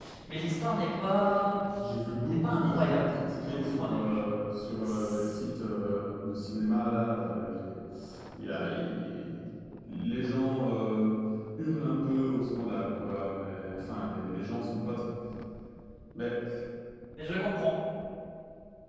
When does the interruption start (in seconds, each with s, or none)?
2.2 s